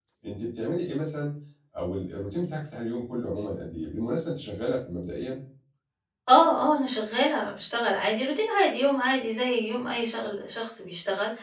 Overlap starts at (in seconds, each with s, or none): none